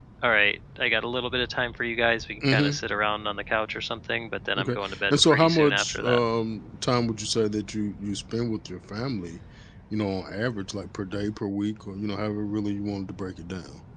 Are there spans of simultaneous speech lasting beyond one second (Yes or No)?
Yes